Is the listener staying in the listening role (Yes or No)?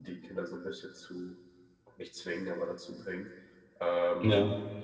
Yes